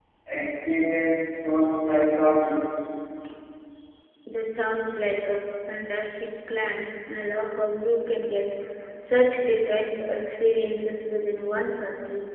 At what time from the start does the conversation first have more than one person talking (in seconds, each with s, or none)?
none